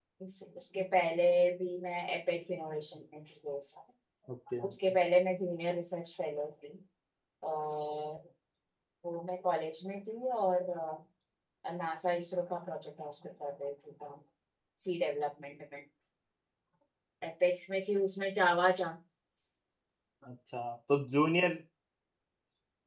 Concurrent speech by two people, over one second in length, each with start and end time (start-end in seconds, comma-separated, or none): none